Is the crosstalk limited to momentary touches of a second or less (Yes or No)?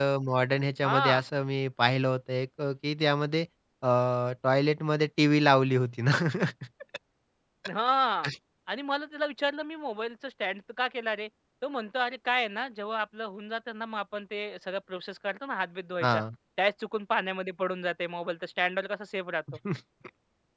Yes